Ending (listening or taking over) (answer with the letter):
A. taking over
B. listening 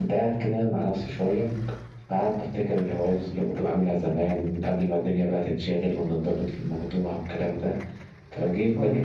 B